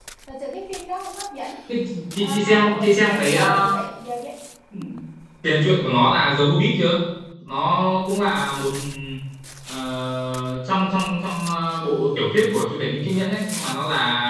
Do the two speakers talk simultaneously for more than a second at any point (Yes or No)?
Yes